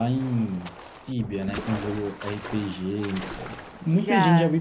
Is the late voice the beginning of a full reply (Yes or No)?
No